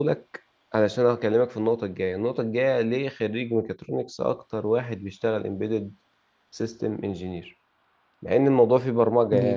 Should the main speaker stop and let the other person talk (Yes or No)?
No